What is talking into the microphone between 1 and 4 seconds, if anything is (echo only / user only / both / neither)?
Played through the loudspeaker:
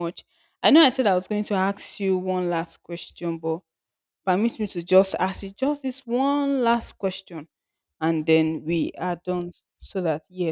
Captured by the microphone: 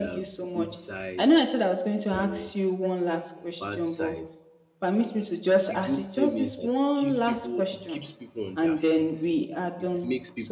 both